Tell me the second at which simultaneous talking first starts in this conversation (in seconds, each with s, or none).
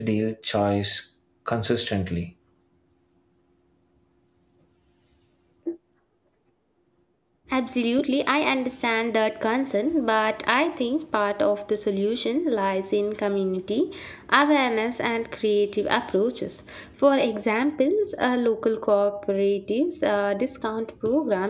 none